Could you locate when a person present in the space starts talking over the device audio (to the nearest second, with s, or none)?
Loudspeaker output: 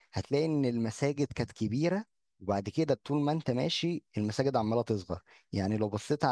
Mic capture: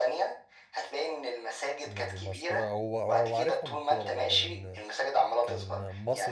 2 s